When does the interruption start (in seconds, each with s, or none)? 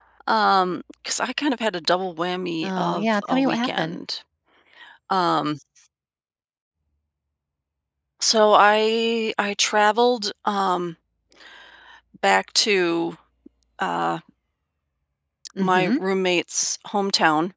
2.6 s